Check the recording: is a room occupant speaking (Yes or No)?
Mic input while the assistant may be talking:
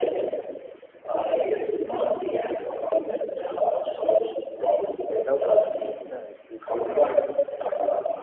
Yes